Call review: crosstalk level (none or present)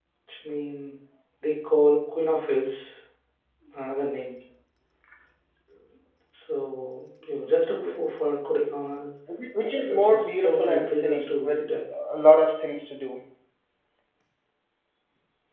present